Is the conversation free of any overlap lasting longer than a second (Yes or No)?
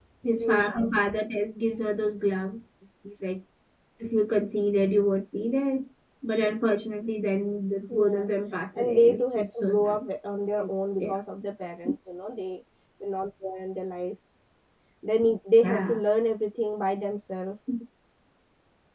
No